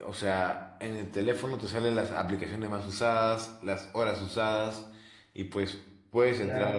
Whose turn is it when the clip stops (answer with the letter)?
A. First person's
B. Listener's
A